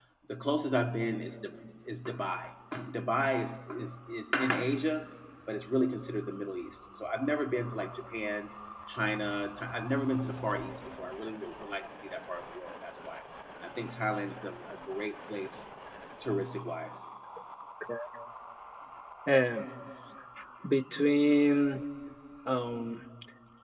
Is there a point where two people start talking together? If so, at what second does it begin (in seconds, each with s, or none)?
none